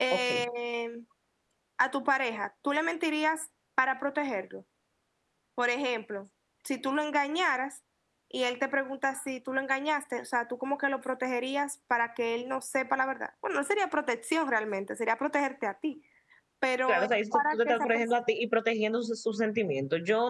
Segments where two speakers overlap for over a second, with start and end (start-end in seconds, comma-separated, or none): 16.9-18.2